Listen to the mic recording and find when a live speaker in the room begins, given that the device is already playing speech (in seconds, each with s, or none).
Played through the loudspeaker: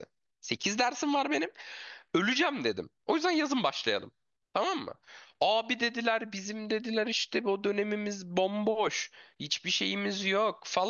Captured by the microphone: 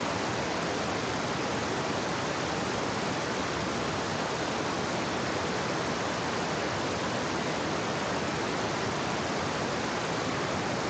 none